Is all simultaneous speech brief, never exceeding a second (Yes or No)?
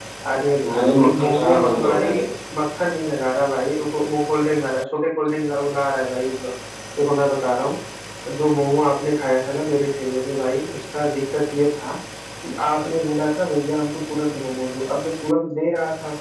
No